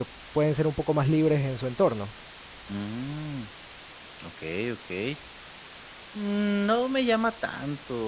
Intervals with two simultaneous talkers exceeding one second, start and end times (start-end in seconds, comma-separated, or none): none